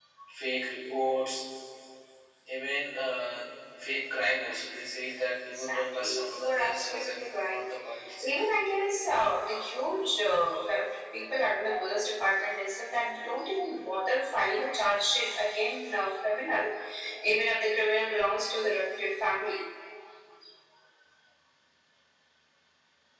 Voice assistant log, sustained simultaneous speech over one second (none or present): present